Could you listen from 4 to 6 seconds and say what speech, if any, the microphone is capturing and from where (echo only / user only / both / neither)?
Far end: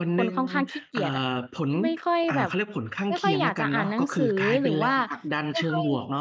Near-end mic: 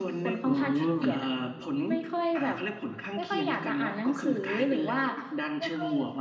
echo only